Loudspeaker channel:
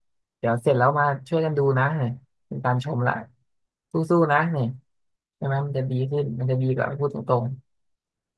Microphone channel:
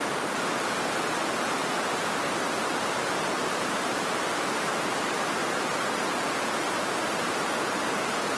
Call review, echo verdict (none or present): none